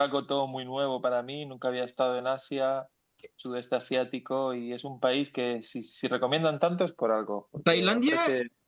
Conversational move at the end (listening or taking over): taking over